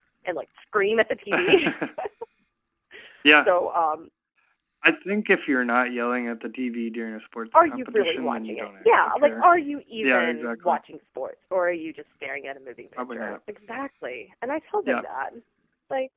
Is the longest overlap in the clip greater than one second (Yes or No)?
Yes